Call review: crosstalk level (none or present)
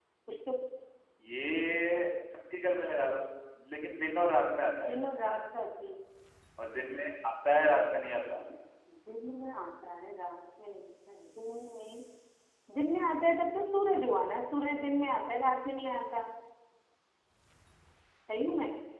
none